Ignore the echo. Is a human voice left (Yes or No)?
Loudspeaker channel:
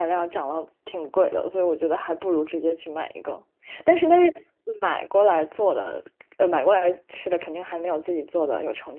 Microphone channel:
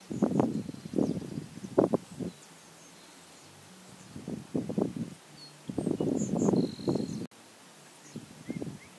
No